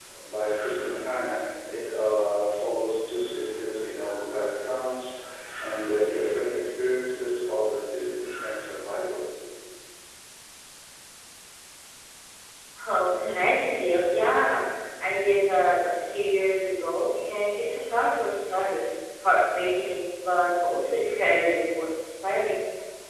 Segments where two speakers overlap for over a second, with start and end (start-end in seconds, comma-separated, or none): none